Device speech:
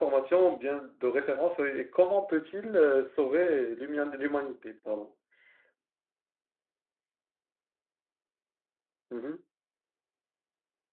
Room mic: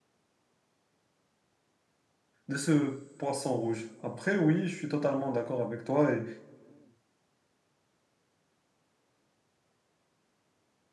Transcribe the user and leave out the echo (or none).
de ce poisson rouge. Après, oui, je suis totalement d'accord avec toi et,